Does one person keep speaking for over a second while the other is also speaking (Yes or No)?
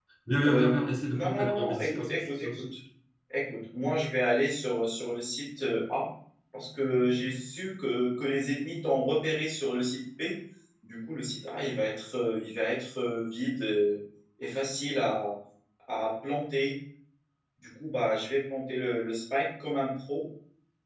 Yes